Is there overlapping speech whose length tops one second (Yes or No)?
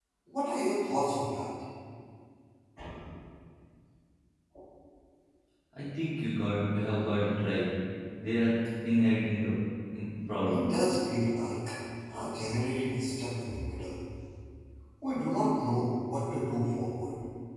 No